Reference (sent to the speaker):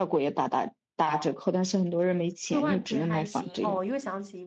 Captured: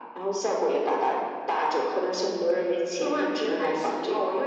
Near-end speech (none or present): none